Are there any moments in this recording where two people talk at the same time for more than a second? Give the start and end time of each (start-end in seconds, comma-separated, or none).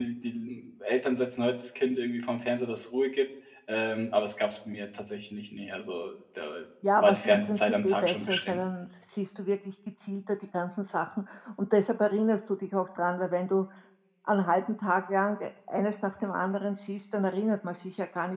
7.0-8.6